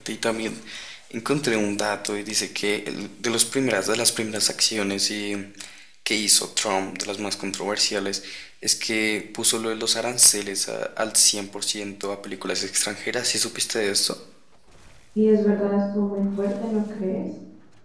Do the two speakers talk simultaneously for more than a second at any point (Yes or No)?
No